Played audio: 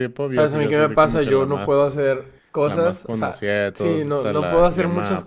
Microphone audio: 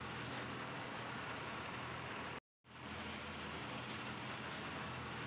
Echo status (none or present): none